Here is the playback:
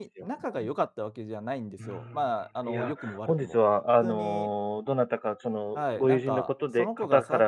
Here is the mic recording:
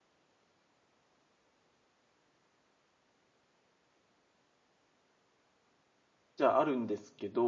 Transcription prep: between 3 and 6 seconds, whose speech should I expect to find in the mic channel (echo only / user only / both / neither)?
neither